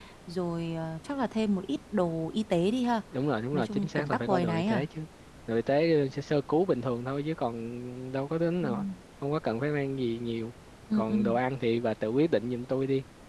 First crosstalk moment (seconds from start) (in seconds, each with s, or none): 3.5 s